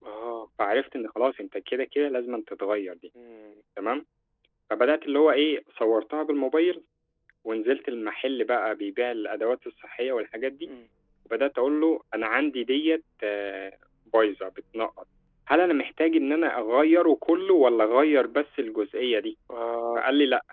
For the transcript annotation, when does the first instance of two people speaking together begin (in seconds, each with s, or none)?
none